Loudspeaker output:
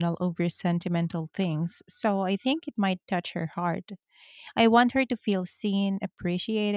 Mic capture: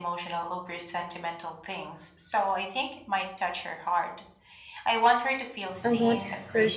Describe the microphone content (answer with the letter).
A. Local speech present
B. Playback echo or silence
A